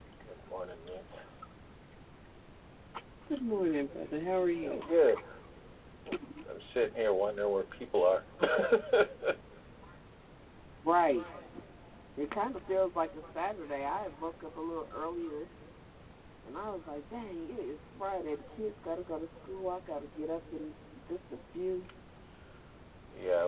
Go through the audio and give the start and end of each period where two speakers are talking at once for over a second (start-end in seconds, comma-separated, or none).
none